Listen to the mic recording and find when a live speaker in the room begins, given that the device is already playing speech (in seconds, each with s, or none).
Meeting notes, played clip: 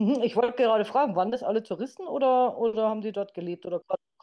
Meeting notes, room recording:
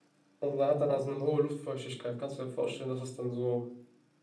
0.4 s